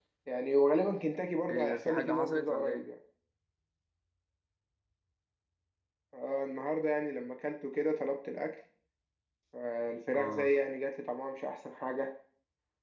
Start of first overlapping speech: 1.5 s

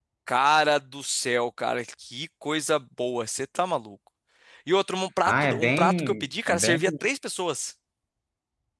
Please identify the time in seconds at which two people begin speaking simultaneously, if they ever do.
5.3 s

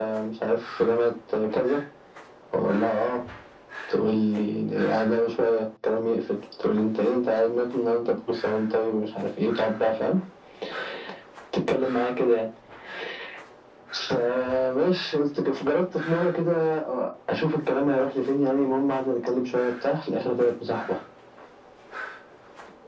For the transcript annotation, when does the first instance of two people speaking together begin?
none

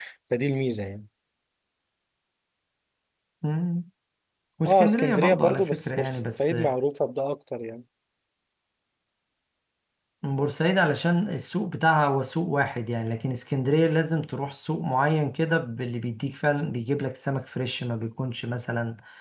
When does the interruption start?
4.7 s

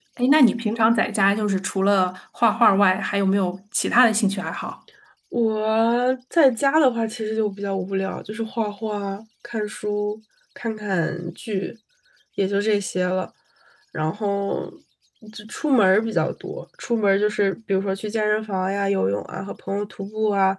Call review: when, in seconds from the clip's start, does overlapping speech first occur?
none

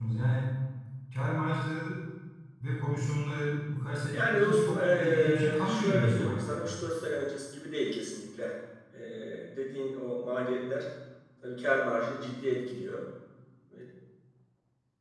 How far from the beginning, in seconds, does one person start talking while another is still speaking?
4.1 s

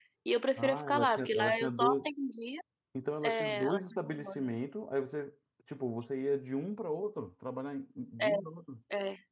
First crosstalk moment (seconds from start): 0.6 s

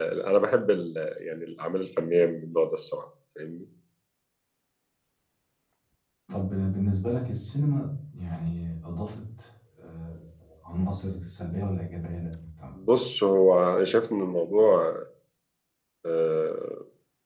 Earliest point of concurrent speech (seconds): none

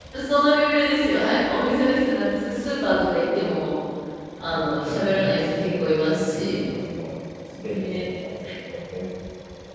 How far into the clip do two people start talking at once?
4.5 s

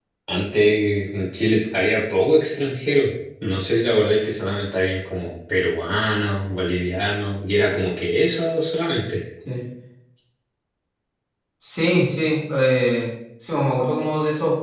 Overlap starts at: none

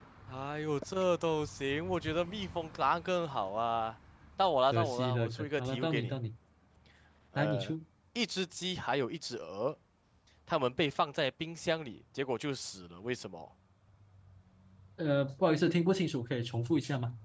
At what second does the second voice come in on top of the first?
4.7 s

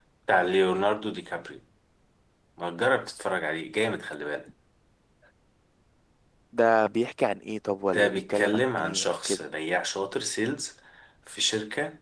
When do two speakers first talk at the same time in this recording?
7.9 s

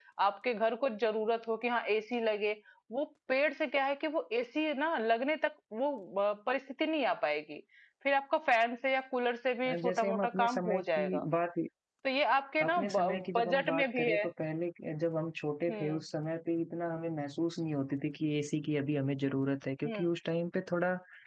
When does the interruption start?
9.8 s

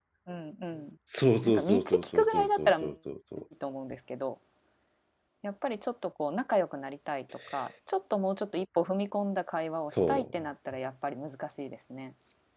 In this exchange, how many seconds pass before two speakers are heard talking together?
1.4 s

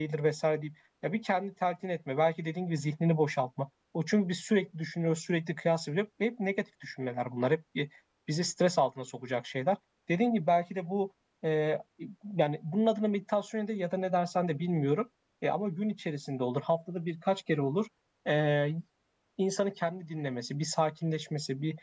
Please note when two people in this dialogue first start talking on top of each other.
none

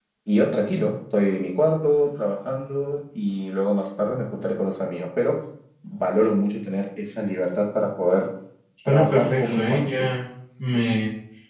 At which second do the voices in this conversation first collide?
8.9 s

